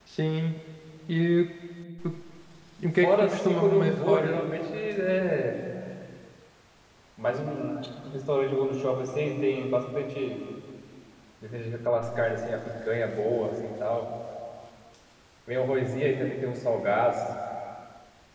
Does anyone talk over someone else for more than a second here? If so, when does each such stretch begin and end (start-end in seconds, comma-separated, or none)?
3.0-4.3